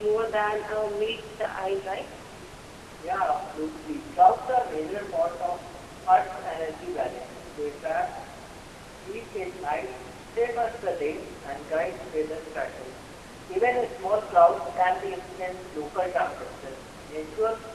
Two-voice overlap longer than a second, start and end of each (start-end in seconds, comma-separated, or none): none